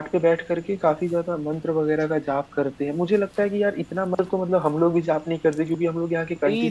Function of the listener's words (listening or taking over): taking over